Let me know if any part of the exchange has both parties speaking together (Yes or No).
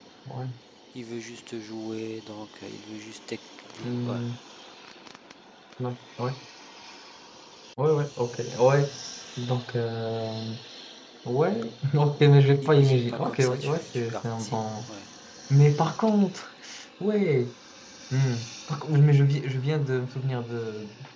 Yes